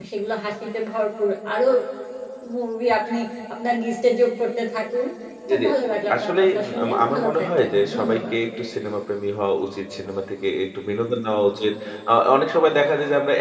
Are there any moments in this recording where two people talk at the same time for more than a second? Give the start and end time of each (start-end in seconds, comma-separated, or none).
6.1-8.3